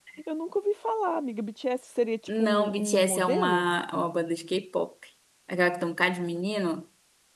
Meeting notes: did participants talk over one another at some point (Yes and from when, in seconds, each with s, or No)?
Yes, from 2.3 s